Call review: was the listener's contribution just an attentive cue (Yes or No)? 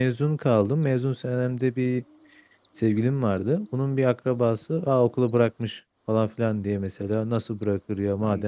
Yes